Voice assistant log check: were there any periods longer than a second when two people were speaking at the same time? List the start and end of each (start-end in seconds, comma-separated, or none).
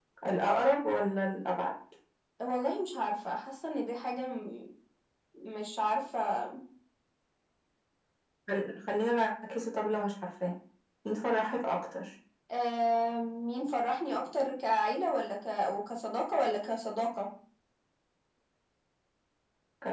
none